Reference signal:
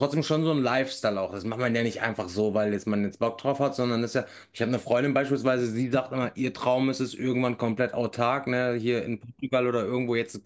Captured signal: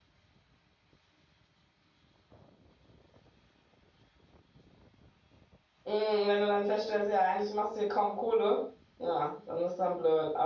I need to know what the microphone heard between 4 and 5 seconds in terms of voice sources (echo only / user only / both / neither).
neither